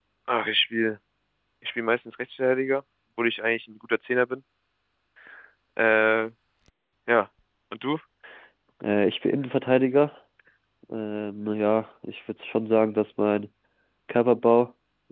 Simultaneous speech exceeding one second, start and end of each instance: none

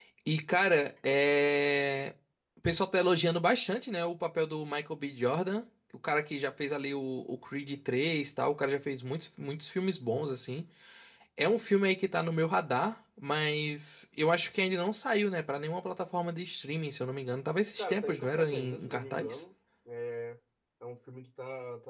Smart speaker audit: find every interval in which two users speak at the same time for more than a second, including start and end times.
17.8-19.4

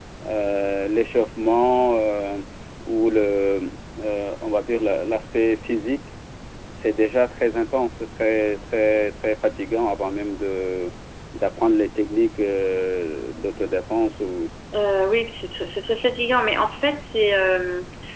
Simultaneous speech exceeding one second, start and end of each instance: none

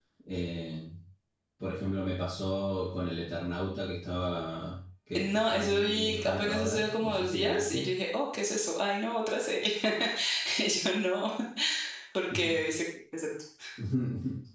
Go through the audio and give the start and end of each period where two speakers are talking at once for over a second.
5.2-7.8

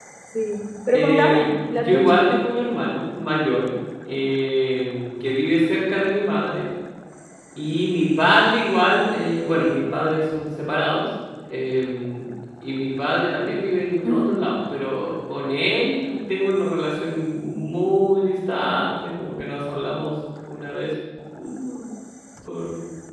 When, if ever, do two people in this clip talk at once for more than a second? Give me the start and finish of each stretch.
0.9-2.2

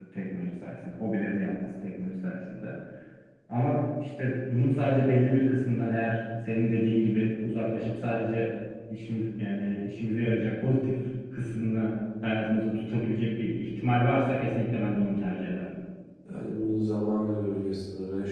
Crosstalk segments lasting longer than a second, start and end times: none

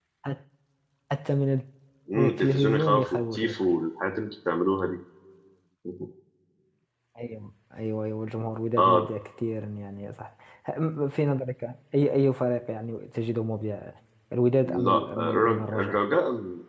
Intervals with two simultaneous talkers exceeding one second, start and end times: 2.2-3.7, 14.6-16.0

